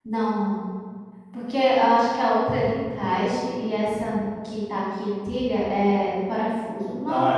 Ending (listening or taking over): taking over